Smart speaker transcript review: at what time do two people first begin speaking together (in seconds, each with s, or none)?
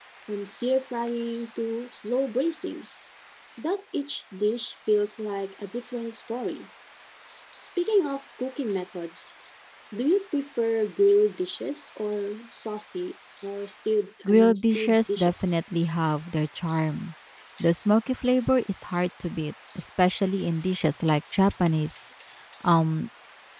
14.2 s